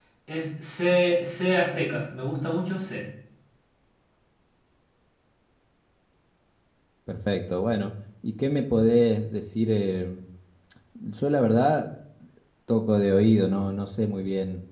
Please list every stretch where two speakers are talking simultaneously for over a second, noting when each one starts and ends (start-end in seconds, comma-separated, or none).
none